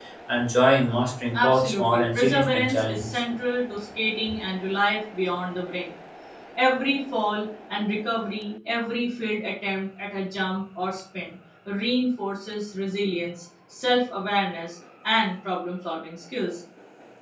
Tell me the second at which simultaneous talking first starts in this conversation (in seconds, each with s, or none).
1.3 s